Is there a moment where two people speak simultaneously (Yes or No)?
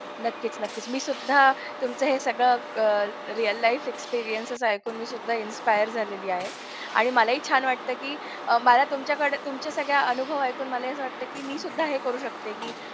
No